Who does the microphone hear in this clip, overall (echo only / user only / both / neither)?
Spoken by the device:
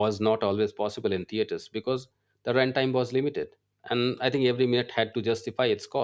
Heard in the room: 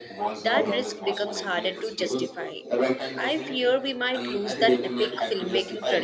both